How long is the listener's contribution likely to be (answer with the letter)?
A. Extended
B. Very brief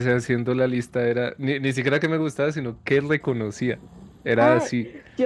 A